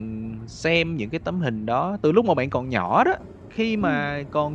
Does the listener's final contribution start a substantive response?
No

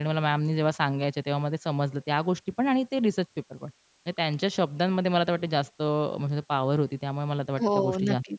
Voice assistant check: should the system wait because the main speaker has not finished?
No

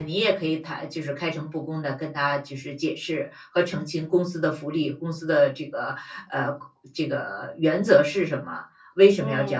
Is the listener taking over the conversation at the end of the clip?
No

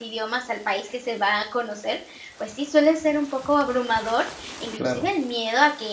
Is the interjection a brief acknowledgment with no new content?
Yes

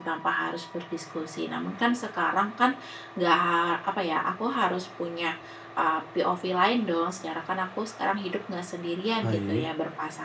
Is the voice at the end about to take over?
No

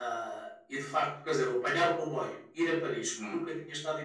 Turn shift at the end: No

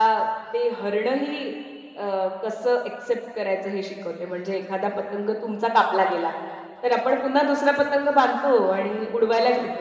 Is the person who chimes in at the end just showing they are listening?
Yes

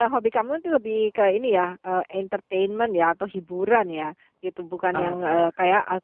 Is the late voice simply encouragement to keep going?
Yes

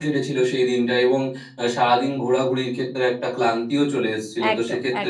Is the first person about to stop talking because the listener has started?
No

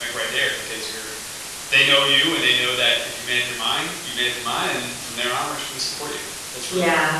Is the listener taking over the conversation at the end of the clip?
Yes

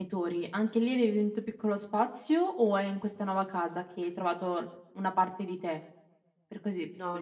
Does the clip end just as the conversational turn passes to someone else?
Yes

